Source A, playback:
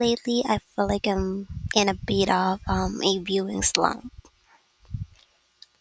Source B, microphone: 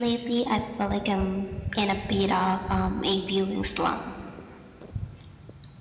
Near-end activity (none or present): none